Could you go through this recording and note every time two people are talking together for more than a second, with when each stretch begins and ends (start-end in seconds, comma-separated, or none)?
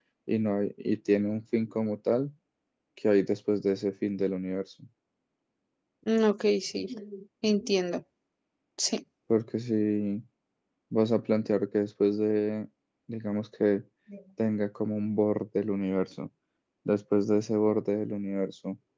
none